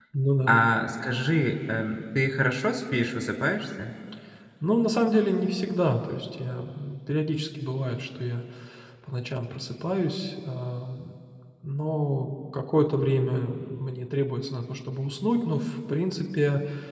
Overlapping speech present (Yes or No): No